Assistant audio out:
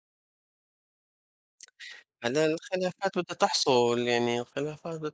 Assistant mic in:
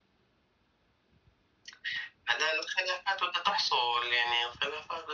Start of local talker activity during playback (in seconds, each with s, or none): none